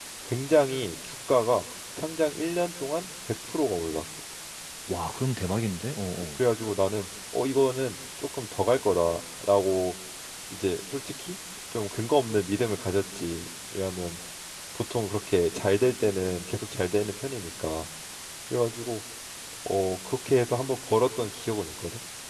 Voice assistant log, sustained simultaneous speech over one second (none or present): none